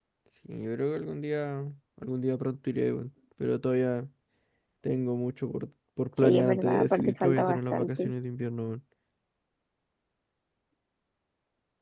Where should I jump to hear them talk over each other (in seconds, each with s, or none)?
6.2 s